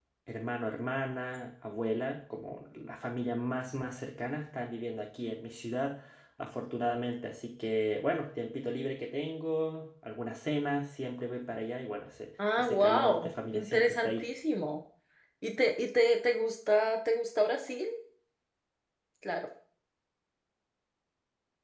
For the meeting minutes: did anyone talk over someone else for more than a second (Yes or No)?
Yes